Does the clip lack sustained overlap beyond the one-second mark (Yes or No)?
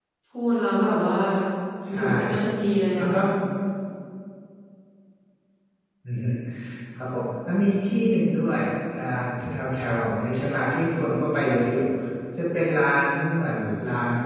Yes